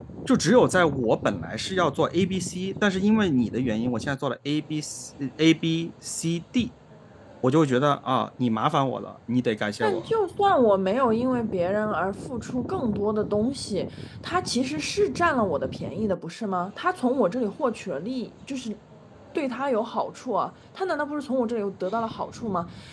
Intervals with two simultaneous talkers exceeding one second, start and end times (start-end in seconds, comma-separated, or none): none